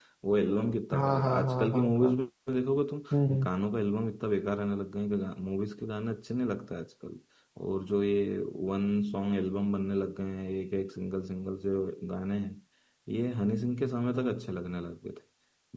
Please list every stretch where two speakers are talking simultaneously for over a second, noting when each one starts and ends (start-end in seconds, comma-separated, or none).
0.9-2.1